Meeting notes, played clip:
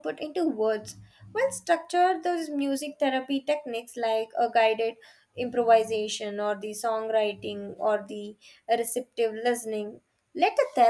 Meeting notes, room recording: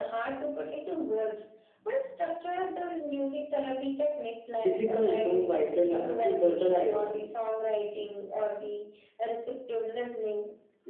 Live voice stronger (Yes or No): Yes